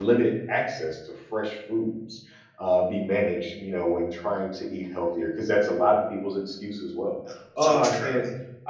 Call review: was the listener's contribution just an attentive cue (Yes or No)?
Yes